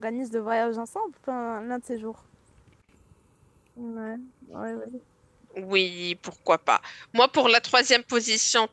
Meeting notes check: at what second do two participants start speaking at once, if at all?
none

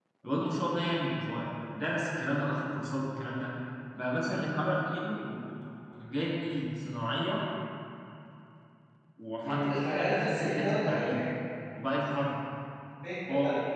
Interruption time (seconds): 9.4 s

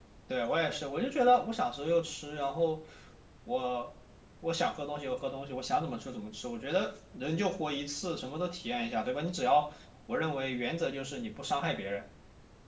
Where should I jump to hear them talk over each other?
none

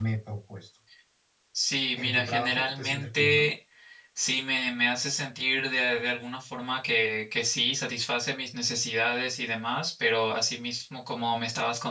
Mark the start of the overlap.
2.0 s

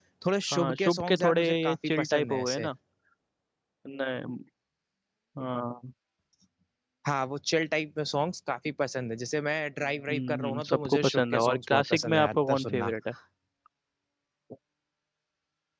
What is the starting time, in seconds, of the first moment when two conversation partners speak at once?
0.5 s

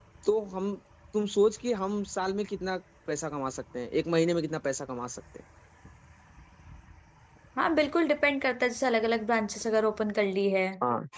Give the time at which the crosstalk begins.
none

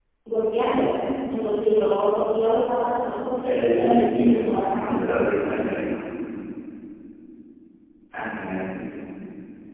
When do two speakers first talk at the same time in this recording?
3.4 s

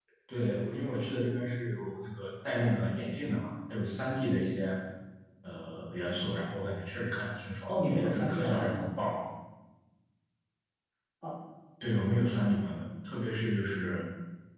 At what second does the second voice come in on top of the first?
7.7 s

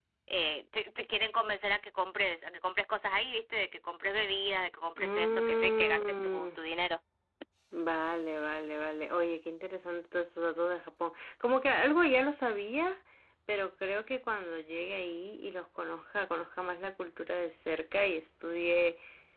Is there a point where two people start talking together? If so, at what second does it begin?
5.0 s

